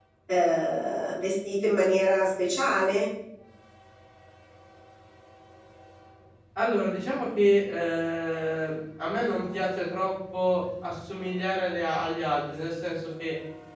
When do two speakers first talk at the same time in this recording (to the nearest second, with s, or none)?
none